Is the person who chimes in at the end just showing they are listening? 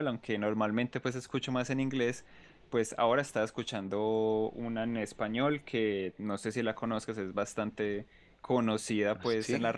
Yes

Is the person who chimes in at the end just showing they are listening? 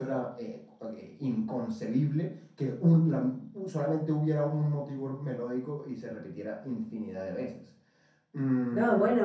No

